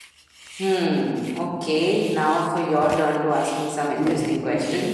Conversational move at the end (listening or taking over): taking over